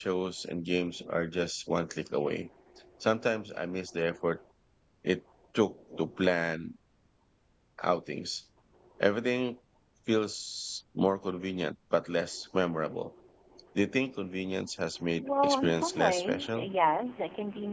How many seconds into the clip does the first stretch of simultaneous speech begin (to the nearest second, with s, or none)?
15 s